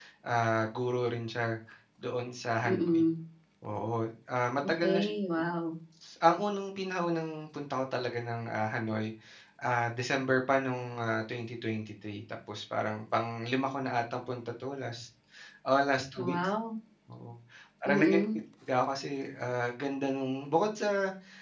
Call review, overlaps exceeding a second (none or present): none